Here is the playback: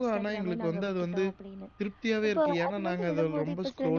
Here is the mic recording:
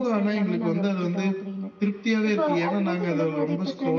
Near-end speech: none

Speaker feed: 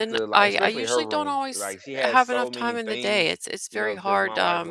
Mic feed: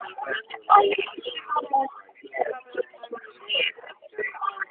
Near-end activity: none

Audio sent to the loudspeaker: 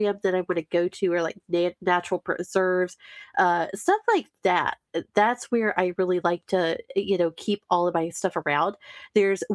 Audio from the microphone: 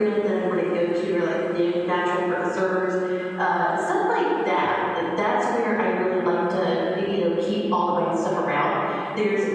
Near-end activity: none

